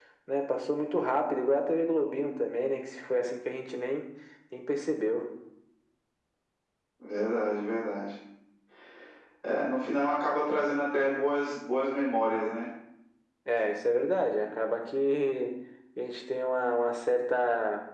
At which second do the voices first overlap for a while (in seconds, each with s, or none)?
none